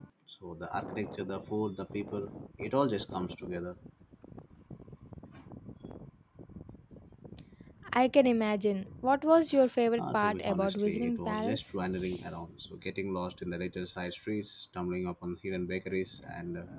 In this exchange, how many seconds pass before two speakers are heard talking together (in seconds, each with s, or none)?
10.0 s